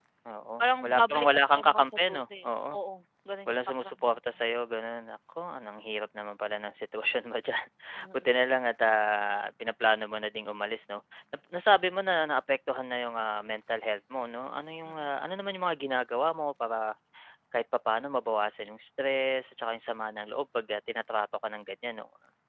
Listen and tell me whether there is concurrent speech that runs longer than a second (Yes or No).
Yes